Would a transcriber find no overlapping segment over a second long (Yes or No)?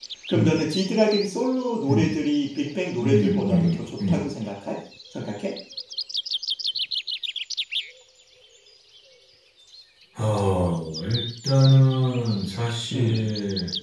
No